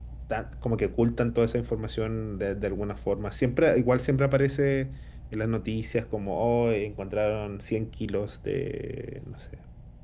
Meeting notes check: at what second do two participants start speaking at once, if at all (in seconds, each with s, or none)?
none